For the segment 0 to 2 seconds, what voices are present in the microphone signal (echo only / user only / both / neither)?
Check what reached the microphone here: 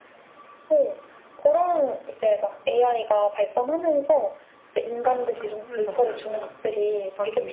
echo only